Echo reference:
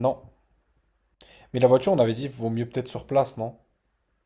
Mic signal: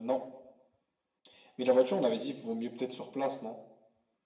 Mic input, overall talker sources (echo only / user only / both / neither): echo only